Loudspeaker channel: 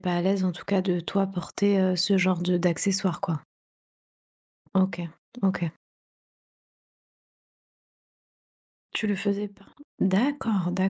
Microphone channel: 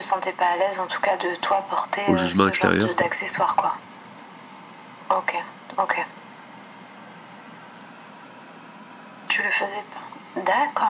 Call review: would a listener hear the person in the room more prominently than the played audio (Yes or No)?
Yes